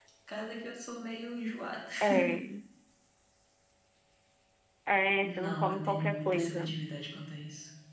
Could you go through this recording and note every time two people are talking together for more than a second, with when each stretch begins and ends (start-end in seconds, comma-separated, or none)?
5.2-6.8